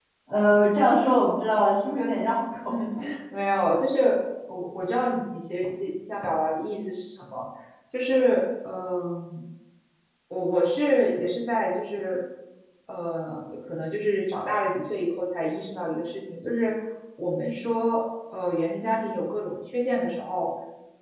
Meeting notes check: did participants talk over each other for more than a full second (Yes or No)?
No